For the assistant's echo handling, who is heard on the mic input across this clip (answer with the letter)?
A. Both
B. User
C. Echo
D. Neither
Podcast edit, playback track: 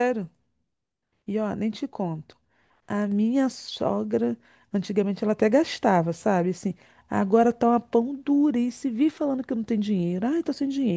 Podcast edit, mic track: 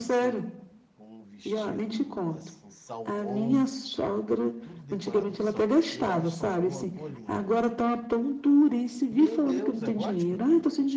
A